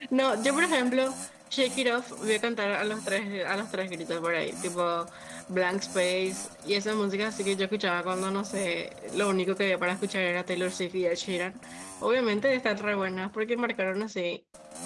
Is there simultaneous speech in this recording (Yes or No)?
No